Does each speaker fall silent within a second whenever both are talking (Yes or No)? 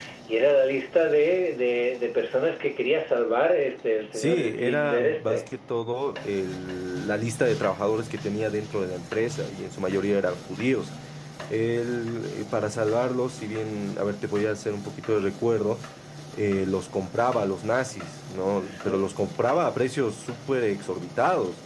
No